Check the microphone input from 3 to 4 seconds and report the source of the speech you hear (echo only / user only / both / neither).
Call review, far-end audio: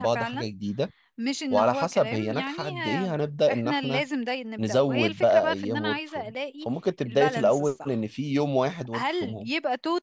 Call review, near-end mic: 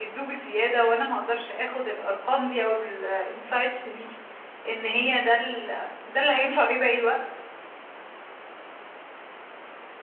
user only